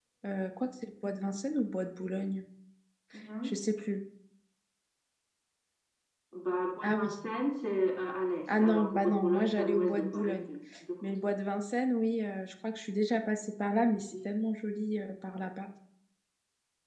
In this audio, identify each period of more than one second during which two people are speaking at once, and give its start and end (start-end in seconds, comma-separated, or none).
8.6-10.5